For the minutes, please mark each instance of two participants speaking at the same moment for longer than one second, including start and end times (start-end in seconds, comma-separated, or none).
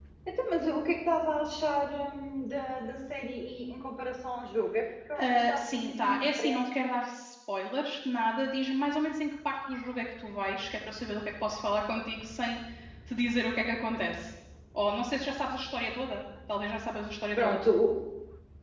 5.2-6.6